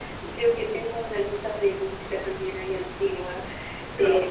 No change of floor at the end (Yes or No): No